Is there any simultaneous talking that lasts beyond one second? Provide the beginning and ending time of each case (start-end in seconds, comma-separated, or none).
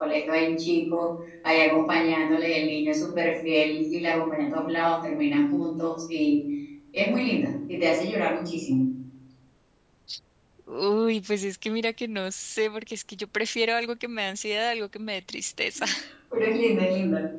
none